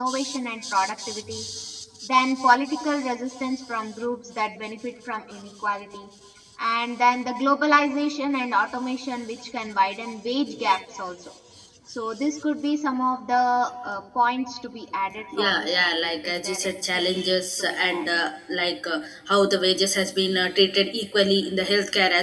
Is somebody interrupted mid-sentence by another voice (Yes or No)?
Yes